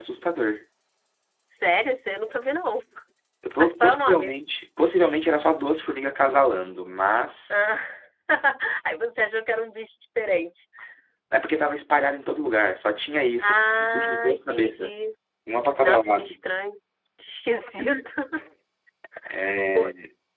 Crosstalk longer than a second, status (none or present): present